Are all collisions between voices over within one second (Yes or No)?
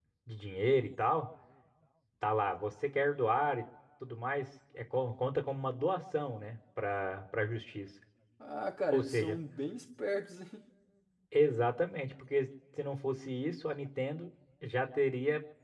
Yes